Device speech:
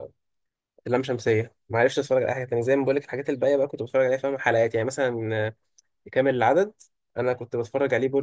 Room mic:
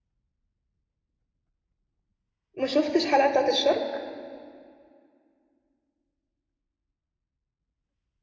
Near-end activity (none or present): present